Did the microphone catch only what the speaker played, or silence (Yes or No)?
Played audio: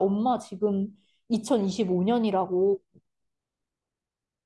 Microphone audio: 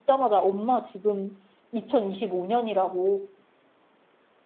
Yes